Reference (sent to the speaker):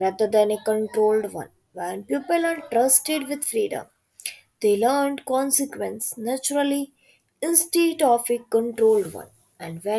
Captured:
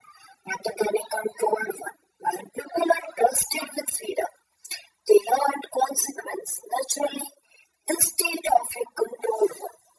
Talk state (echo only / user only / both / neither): echo only